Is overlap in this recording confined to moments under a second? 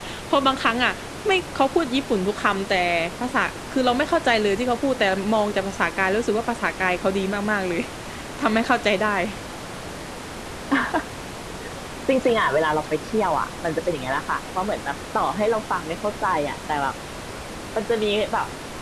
Yes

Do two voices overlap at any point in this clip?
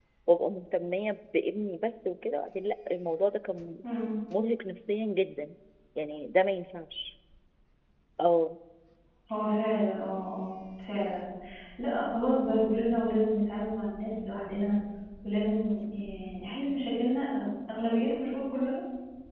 No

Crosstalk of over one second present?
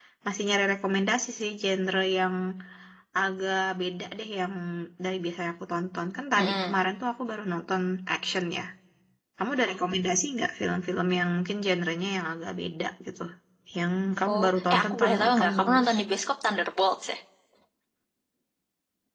Yes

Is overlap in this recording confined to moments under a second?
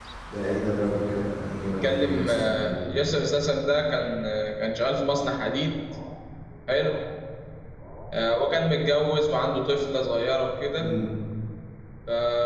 No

